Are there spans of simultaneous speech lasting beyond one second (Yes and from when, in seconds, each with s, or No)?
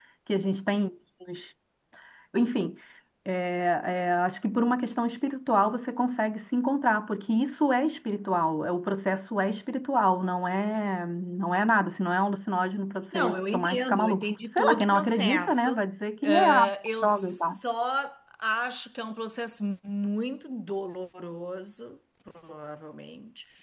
Yes, from 13.1 s